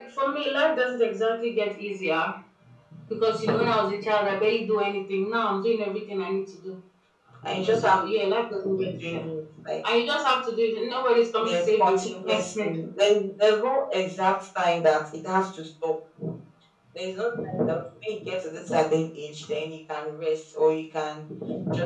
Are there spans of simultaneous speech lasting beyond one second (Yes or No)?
Yes